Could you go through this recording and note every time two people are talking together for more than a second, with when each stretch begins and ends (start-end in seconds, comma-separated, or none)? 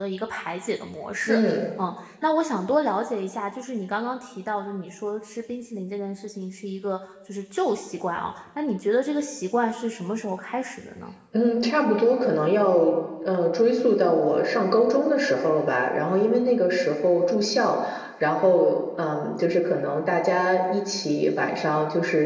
none